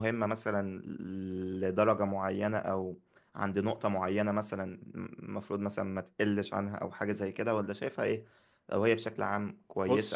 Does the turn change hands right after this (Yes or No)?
No